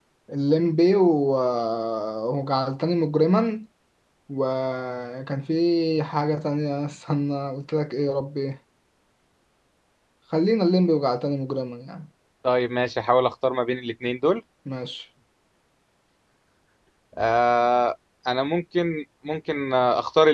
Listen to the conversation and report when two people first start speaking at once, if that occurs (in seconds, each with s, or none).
none